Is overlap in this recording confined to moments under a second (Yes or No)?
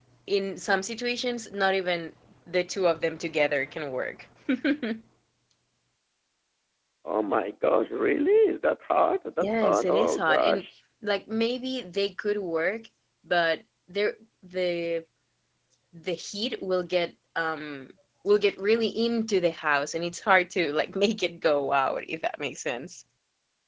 No